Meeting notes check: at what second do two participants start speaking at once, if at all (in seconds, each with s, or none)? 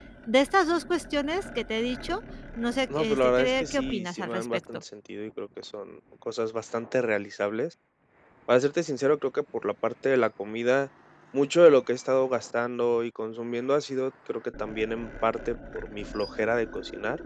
2.9 s